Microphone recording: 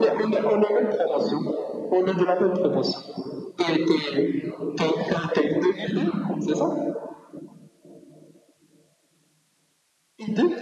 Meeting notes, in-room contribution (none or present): none